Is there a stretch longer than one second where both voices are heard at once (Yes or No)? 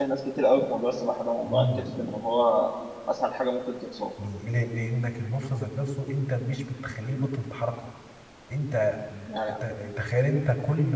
No